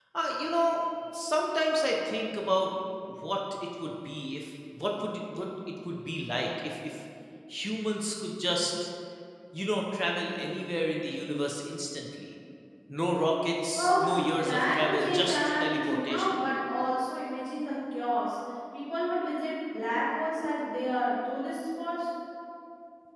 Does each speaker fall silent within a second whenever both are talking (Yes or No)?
No